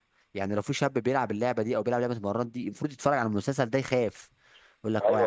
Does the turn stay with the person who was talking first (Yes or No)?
No